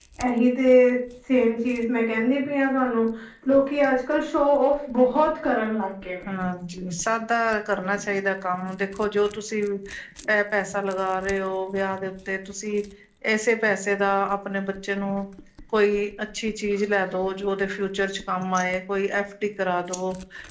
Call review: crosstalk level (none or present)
none